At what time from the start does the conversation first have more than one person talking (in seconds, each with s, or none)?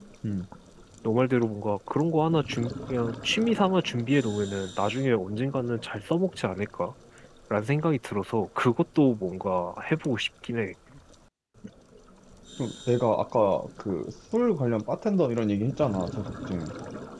none